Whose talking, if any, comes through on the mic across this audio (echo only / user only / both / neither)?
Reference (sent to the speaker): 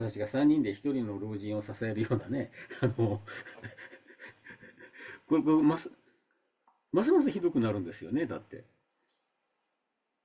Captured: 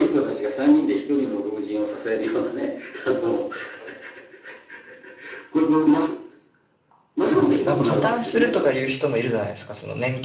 both